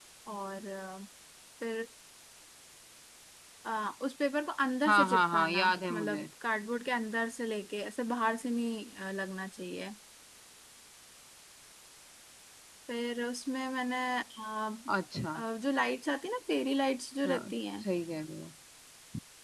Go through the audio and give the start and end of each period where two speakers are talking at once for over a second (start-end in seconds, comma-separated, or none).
4.9-6.2